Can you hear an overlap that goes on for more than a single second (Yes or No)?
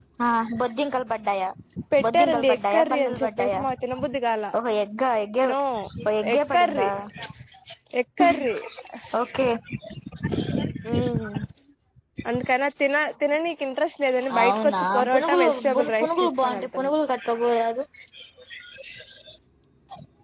Yes